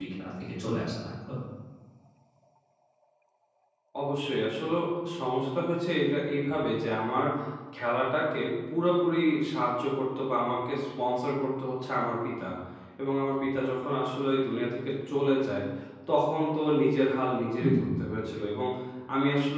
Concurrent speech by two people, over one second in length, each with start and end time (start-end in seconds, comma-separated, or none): none